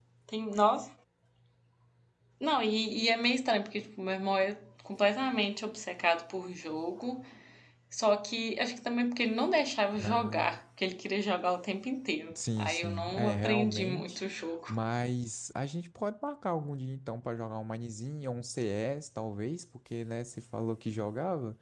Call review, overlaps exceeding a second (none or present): present